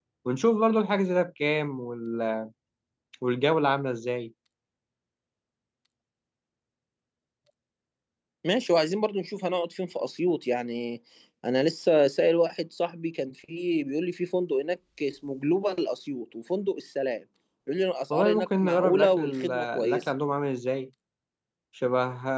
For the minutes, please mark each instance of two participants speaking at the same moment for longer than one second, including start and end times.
18.1-20.0

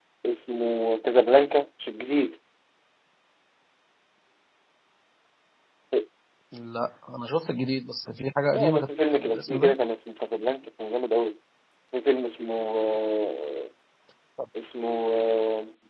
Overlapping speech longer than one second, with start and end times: 8.5-9.7

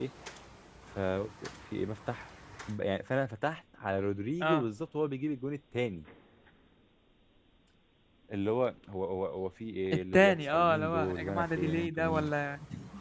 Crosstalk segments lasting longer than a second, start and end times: 9.9-12.3

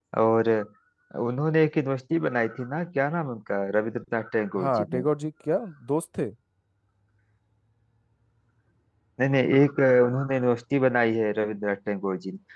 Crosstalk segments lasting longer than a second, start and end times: none

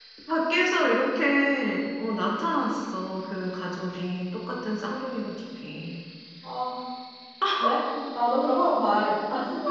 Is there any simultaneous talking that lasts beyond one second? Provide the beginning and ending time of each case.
none

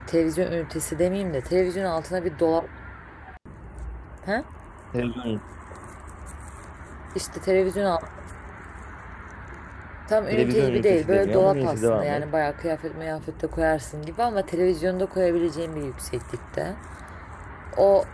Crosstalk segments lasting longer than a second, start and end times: 10.3-12.2

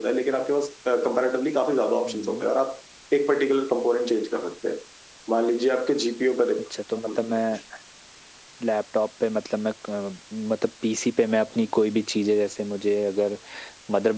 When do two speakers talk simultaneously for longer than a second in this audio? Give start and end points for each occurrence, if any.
none

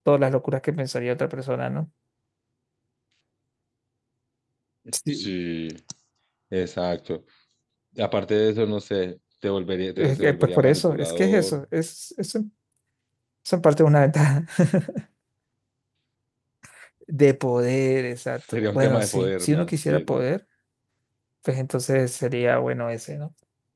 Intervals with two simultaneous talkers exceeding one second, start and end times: 10.0-11.6, 18.5-20.1

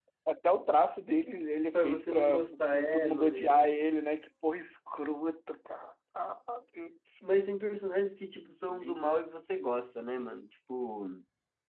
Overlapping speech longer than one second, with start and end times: 1.7-3.7

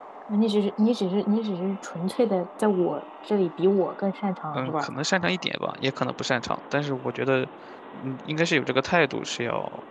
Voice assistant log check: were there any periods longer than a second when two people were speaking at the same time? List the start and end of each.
none

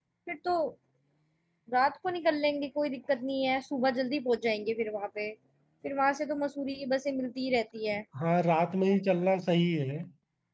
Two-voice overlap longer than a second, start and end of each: none

